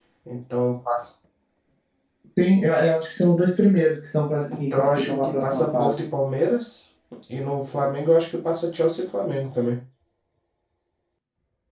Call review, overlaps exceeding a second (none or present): present